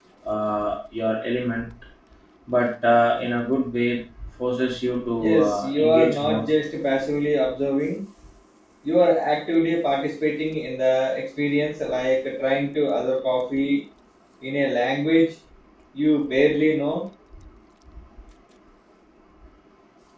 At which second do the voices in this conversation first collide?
5.2 s

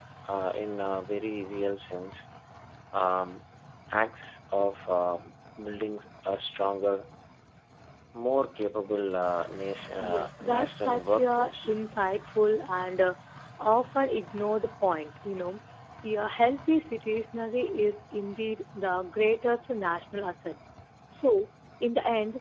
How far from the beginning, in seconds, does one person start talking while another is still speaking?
10.0 s

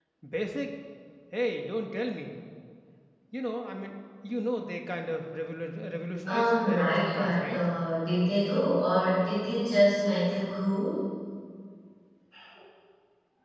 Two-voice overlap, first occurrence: 6.3 s

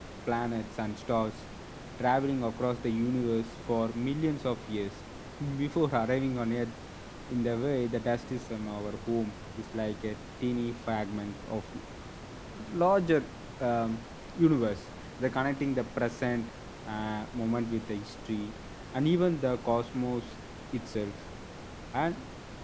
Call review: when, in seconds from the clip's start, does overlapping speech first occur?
none

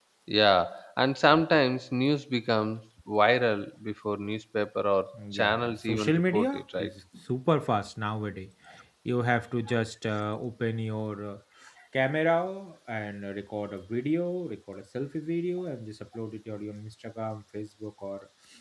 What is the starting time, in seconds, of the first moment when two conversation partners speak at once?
5.1 s

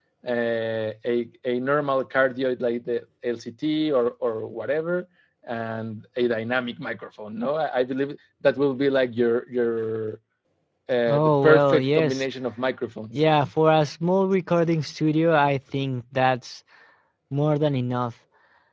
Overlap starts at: 11.1 s

